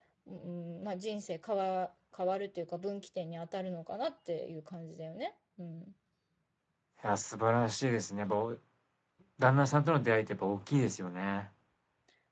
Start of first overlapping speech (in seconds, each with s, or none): none